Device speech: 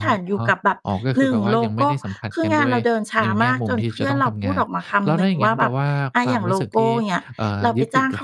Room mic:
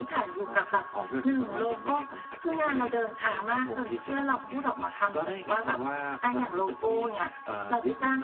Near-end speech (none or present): none